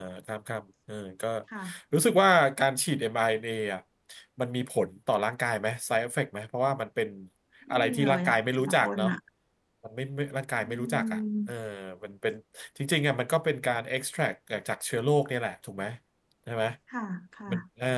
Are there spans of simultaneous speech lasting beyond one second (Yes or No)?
Yes